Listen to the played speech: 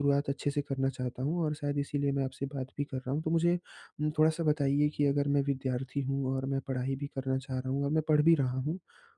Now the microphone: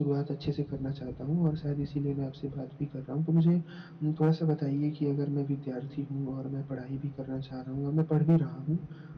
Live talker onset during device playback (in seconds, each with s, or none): none